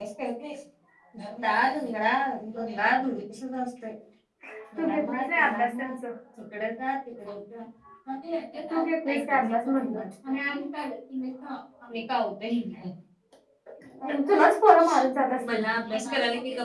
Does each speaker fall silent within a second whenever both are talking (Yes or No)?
No